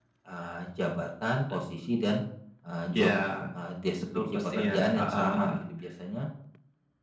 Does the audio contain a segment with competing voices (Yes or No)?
Yes